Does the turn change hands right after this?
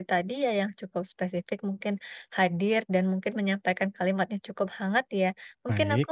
No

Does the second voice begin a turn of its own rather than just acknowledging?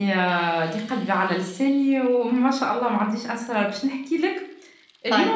No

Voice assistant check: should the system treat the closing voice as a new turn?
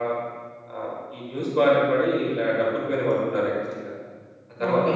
No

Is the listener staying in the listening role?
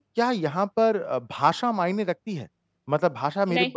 Yes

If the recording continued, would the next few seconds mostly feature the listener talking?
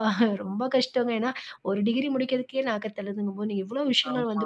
No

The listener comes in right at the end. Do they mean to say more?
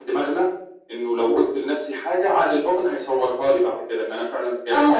Yes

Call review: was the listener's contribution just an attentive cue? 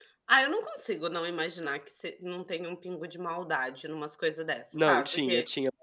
No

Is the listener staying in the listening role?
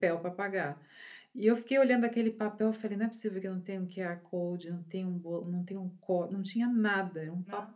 Yes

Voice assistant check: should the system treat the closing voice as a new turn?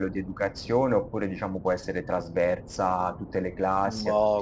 Yes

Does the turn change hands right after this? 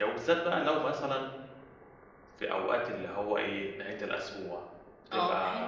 Yes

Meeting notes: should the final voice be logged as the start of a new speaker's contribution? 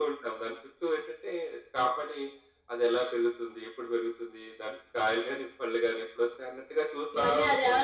Yes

